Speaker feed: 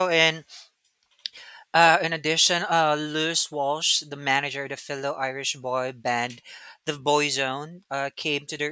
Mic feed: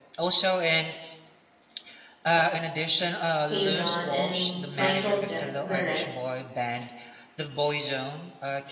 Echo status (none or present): present